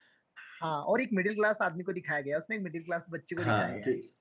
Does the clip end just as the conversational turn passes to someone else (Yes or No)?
Yes